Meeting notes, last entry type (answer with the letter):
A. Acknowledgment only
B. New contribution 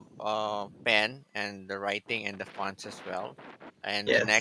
A